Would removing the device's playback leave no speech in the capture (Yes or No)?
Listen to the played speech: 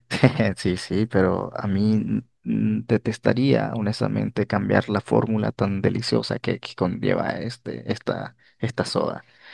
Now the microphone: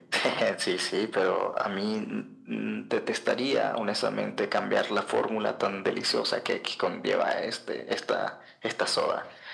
Yes